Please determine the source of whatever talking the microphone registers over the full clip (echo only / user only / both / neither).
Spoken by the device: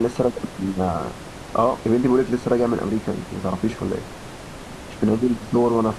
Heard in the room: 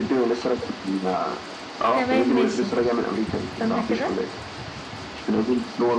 both